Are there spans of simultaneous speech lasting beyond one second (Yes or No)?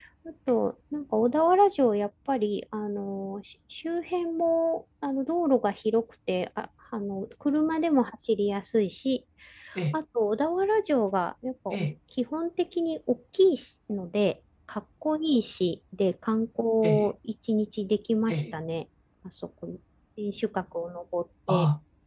No